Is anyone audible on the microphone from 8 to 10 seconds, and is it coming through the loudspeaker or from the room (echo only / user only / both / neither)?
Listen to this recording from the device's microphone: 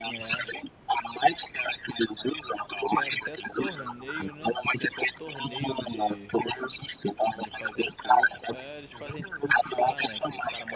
both